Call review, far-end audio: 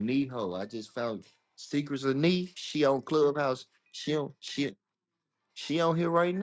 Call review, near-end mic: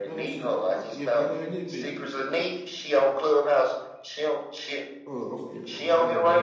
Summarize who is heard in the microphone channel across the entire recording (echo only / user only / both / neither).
both